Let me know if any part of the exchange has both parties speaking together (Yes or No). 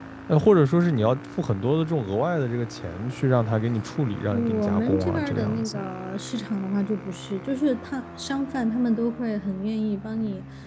Yes